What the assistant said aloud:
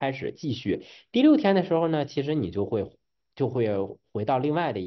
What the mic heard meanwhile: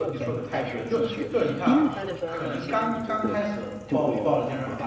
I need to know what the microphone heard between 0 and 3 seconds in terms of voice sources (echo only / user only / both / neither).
both